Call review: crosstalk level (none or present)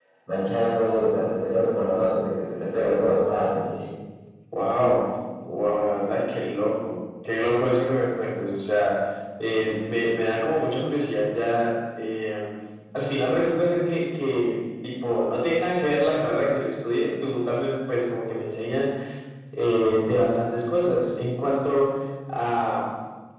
none